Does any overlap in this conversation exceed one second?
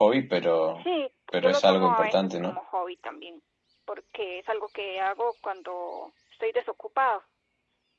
Yes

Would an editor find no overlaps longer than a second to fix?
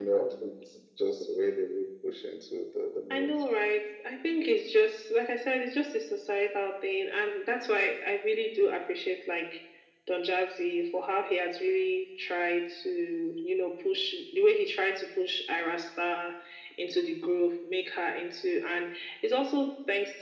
Yes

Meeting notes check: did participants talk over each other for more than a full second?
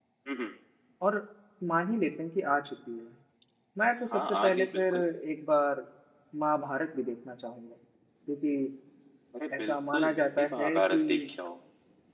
Yes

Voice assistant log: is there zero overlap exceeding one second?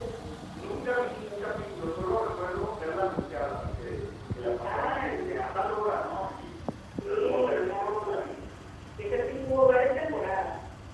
No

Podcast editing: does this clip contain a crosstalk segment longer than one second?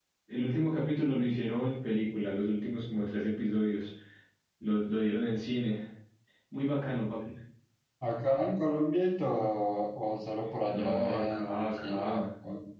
Yes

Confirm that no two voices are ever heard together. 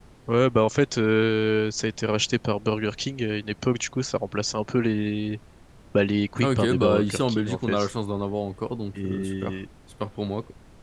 No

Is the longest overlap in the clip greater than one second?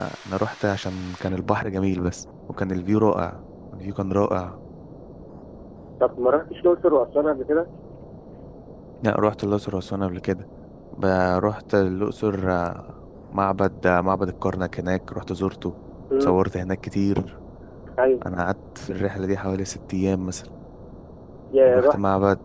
No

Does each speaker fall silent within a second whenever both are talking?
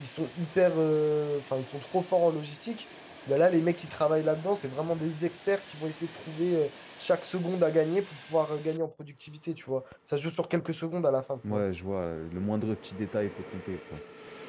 Yes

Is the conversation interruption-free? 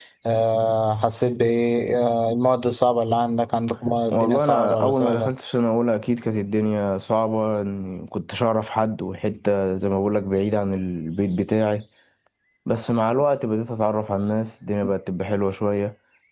No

